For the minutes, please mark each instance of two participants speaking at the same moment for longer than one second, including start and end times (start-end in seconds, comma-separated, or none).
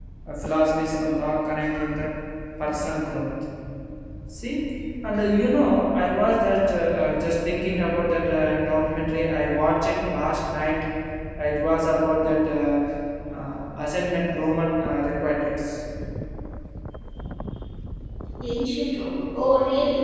none